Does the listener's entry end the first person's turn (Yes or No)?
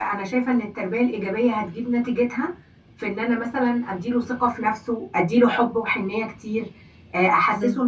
No